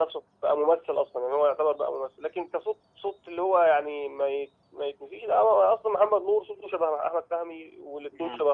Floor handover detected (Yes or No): No